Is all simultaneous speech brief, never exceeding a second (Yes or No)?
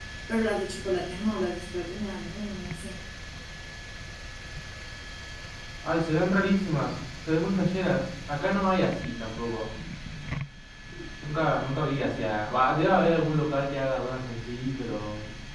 Yes